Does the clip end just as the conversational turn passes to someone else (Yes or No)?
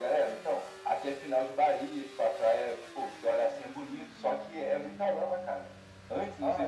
No